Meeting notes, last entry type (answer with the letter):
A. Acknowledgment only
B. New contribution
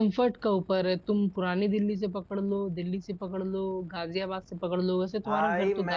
B